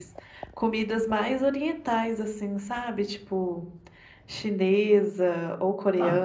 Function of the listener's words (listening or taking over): taking over